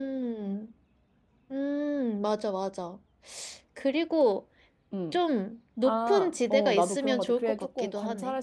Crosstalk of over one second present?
Yes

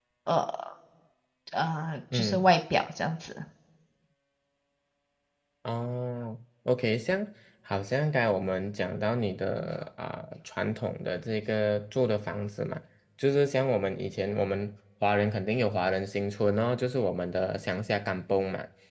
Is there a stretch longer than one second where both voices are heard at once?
No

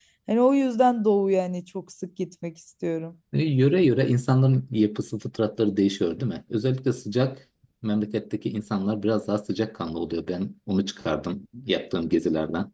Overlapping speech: No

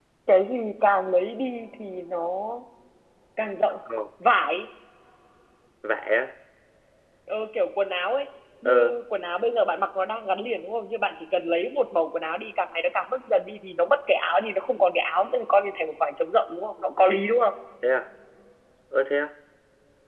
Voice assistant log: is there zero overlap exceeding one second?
Yes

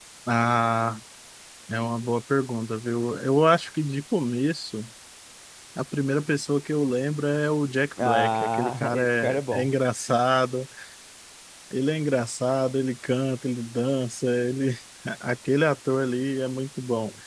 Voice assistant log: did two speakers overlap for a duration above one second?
Yes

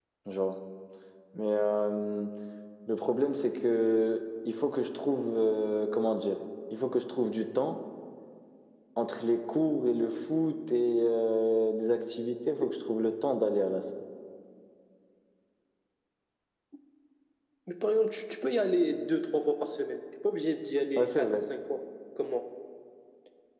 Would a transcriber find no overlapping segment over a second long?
Yes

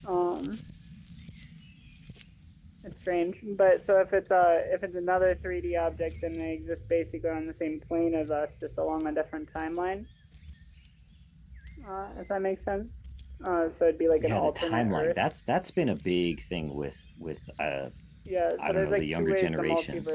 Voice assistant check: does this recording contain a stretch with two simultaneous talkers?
Yes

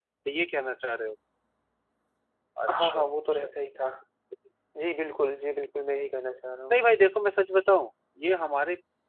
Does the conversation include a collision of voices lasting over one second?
No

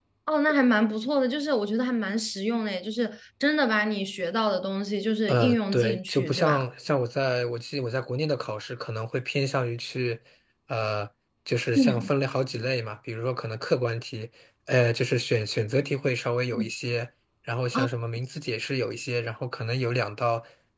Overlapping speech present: Yes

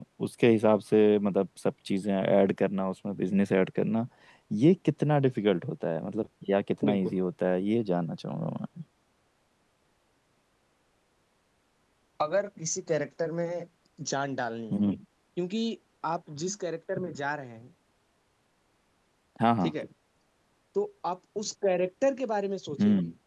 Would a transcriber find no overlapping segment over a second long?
Yes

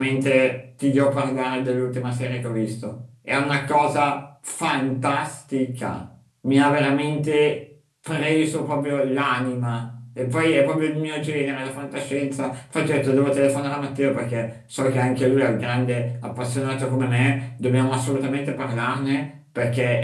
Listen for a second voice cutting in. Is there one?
No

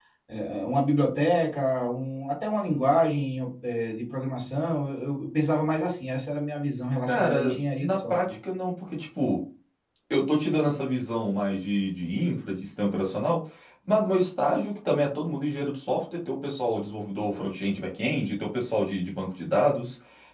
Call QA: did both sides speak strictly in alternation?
No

